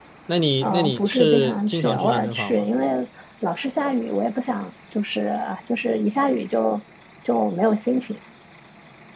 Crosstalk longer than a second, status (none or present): present